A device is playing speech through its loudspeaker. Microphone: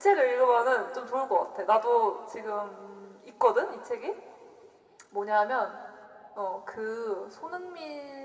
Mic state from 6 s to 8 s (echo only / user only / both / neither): echo only